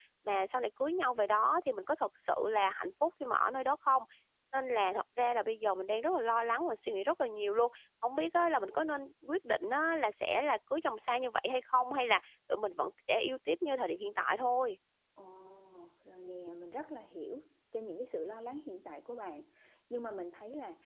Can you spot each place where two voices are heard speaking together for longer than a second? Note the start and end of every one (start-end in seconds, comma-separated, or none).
none